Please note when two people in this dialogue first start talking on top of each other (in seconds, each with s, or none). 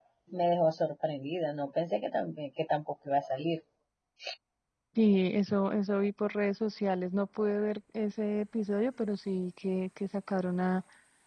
none